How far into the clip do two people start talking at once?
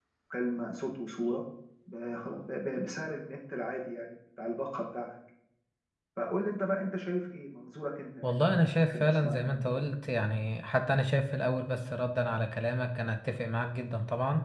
8 s

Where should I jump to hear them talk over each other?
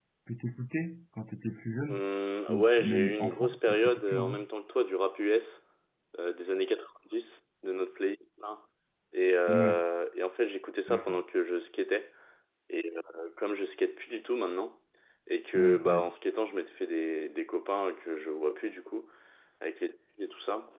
2 s

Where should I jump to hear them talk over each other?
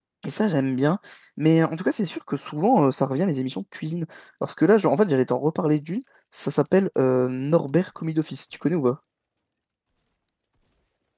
none

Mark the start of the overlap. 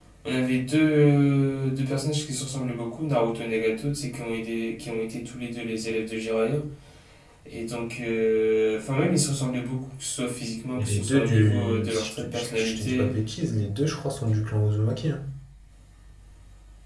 11 s

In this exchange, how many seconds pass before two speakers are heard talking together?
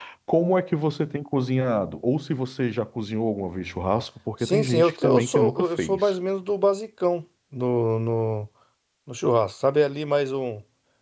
4 s

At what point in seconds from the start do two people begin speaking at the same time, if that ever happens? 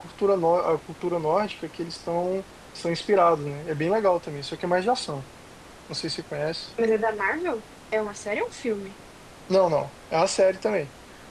none

